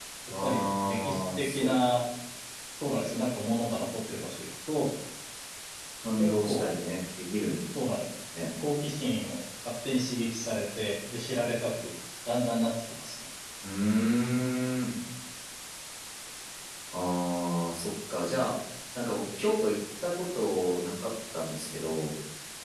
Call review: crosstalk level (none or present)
present